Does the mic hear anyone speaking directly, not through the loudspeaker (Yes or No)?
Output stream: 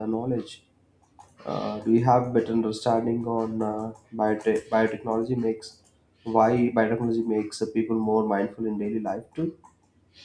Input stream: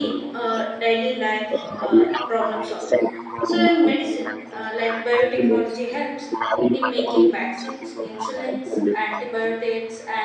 Yes